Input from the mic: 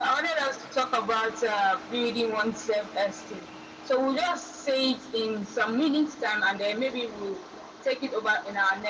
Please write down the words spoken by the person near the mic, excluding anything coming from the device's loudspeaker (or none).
none